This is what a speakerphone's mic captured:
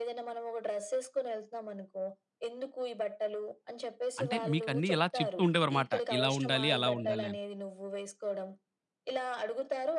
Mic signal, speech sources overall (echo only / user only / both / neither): both